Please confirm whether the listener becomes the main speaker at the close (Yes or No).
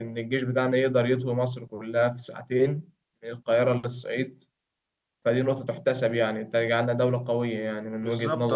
Yes